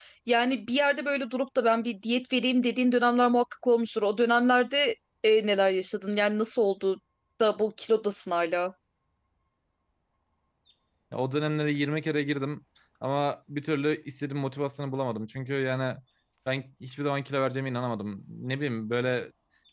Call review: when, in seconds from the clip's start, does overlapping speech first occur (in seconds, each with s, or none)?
none